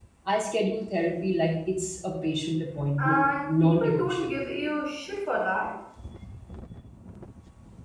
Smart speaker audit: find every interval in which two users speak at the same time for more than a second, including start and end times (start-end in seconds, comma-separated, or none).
3.0-4.4